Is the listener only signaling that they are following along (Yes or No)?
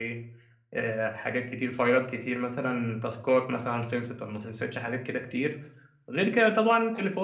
Yes